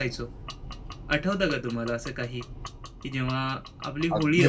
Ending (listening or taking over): taking over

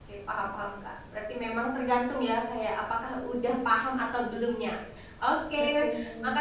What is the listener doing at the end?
listening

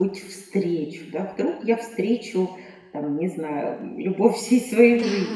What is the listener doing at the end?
taking over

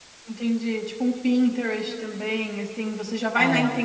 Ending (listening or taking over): listening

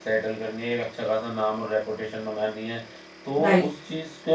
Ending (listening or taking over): listening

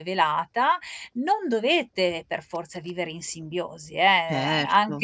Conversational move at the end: listening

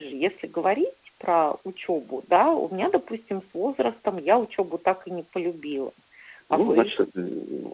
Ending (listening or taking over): taking over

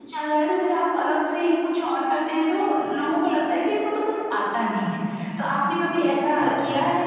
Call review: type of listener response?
listening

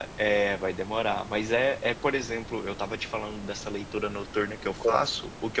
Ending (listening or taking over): listening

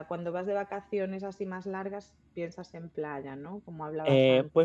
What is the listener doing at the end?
taking over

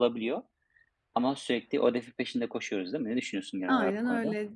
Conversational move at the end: taking over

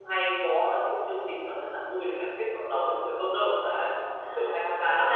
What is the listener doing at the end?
taking over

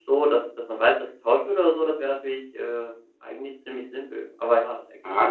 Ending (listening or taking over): taking over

